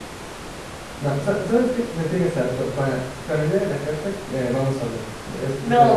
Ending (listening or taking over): taking over